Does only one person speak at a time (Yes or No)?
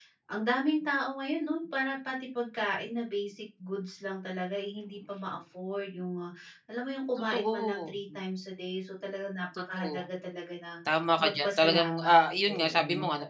No